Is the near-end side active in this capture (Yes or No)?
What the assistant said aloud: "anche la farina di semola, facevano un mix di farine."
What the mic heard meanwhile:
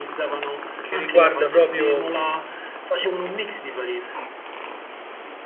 Yes